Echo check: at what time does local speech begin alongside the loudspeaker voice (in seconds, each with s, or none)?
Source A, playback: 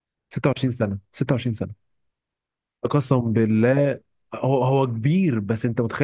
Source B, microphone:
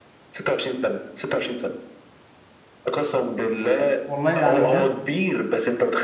4.0 s